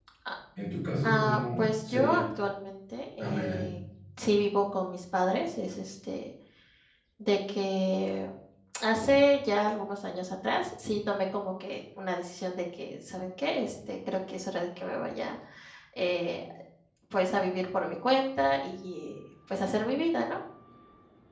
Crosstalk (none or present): present